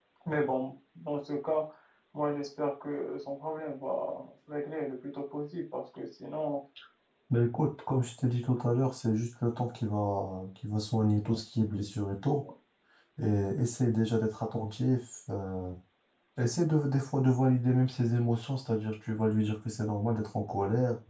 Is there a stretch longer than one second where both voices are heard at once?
No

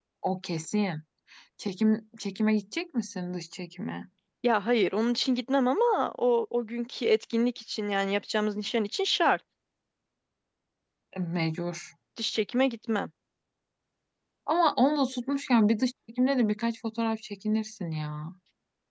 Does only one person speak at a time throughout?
Yes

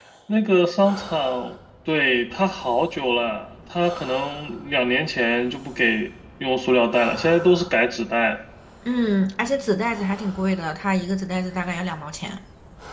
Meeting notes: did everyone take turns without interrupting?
Yes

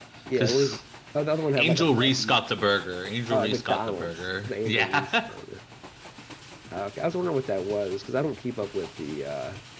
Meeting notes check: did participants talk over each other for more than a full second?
Yes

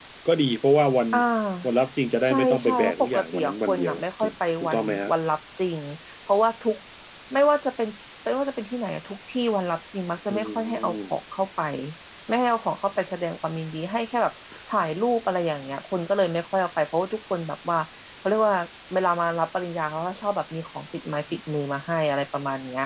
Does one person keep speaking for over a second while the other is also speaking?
Yes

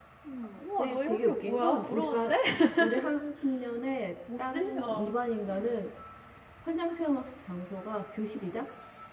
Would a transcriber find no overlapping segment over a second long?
No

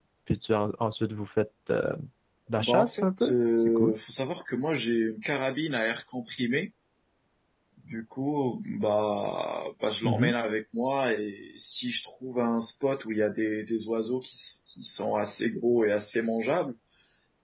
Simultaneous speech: Yes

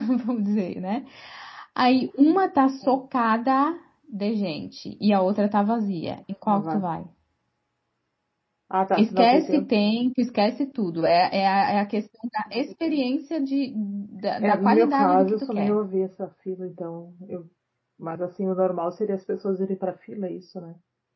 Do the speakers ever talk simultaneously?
Yes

